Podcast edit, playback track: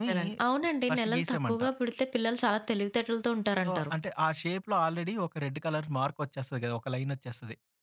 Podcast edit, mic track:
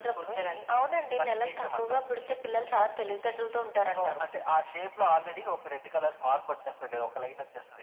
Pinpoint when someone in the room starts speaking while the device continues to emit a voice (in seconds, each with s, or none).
none